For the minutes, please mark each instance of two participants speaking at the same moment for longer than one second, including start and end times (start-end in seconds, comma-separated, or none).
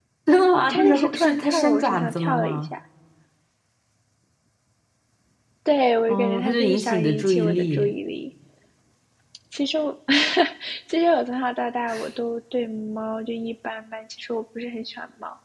0.7-2.7, 6.1-7.9